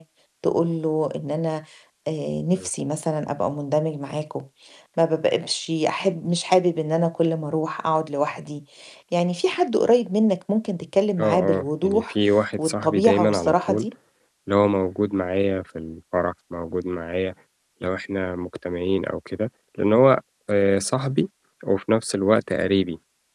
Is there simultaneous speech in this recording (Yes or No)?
Yes